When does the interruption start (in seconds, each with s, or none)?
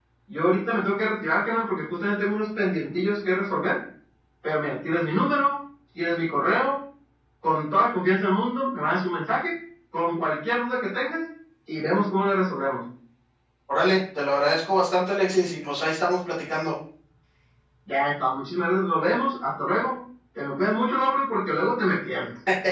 none